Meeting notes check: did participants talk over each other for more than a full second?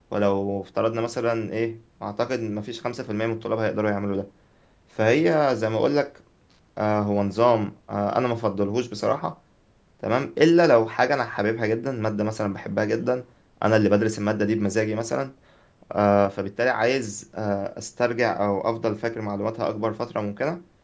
No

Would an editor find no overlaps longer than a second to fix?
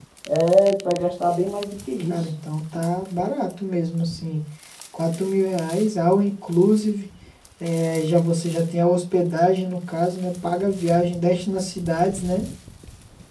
Yes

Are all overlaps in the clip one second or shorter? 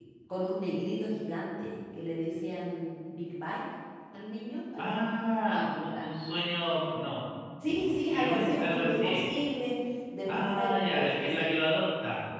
No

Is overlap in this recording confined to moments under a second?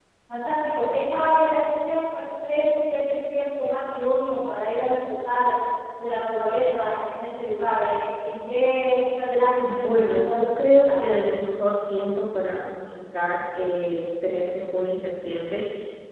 No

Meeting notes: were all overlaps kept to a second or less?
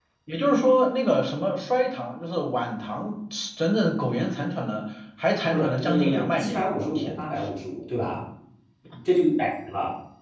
No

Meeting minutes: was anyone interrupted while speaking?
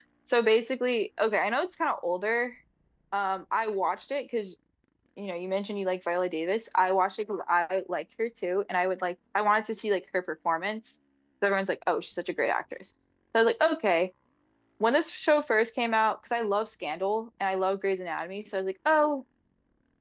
No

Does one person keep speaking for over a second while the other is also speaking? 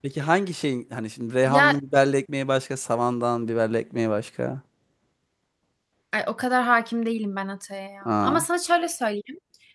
No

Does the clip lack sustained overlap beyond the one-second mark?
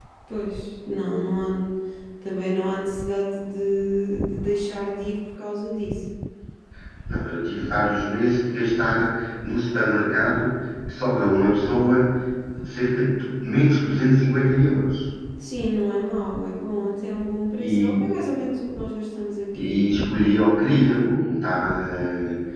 Yes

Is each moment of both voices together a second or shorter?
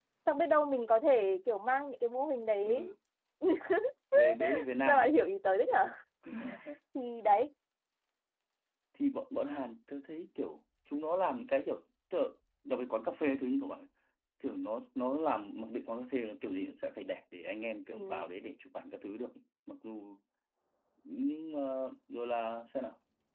Yes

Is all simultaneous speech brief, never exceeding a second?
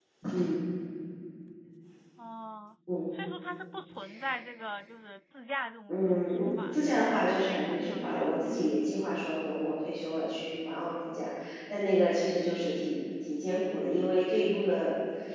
No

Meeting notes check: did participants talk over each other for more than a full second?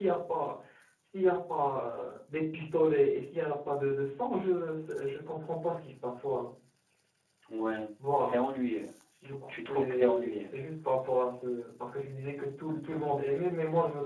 Yes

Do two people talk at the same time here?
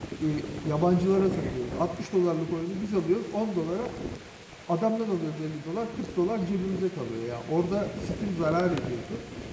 No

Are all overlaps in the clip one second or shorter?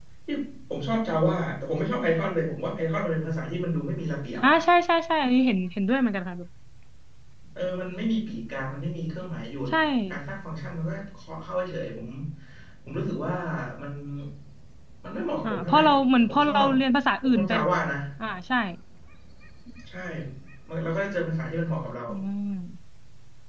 No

